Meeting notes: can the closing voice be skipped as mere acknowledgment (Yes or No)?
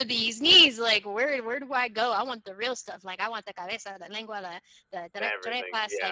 Yes